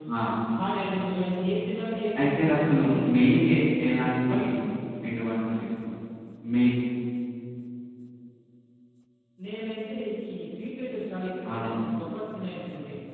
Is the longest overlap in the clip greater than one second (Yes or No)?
Yes